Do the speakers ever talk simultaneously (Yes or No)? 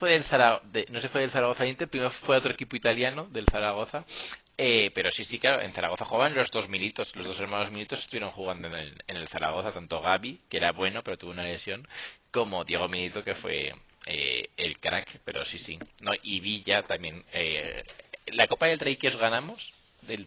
No